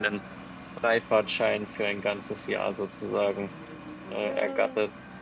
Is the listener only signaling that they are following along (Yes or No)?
No